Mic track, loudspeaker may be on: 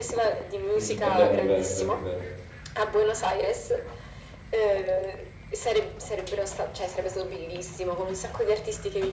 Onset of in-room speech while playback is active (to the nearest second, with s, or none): 1 s